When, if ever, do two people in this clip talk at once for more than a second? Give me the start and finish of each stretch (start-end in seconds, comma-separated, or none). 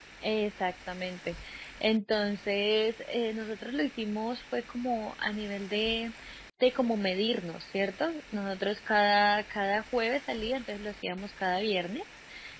none